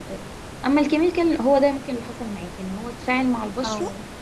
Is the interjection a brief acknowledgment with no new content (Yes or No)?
Yes